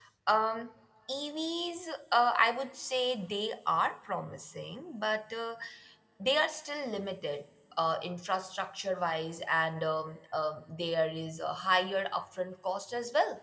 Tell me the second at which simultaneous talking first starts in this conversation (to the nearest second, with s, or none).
none